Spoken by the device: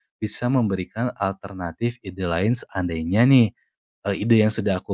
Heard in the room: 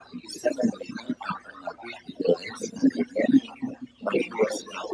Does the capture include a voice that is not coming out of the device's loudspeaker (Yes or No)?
Yes